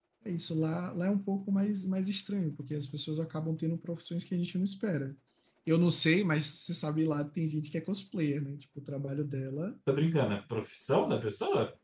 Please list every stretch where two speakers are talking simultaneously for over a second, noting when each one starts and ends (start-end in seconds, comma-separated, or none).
none